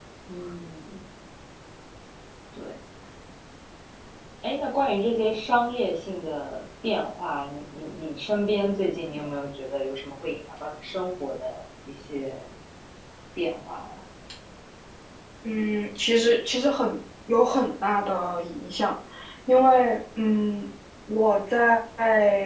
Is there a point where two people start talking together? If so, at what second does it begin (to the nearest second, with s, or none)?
none